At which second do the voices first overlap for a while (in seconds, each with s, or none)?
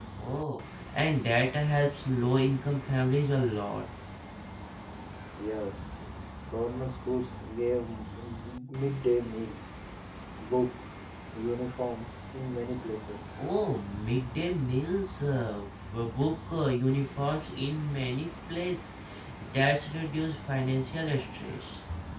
none